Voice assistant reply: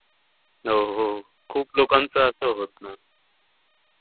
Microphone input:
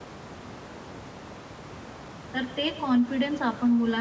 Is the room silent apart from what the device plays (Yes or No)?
No